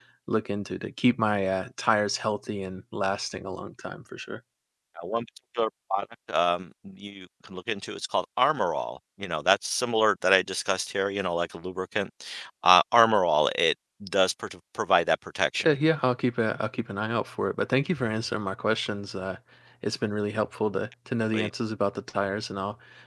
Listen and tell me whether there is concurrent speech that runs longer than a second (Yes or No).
No